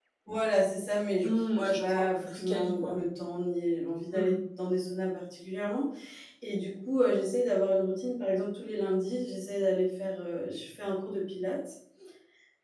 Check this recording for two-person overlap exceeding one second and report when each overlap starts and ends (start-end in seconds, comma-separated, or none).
1.2-3.0